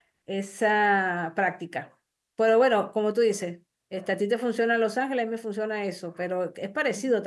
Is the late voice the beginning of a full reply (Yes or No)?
No